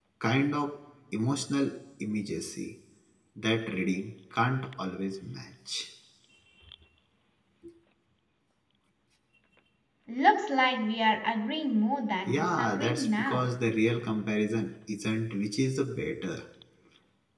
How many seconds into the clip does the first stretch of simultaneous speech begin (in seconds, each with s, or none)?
12.2 s